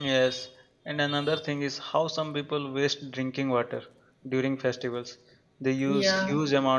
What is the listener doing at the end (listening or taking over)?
listening